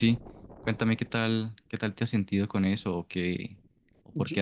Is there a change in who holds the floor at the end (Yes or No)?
No